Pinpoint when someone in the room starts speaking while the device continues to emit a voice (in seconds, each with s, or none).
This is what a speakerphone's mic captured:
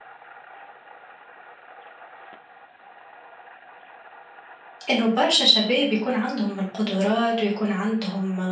4.9 s